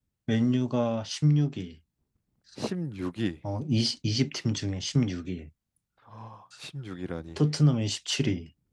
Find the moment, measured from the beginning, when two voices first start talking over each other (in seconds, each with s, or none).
none